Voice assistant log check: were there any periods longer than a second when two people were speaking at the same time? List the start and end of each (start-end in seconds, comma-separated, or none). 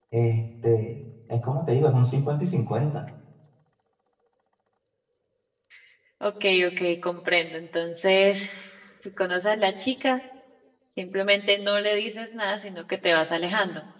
none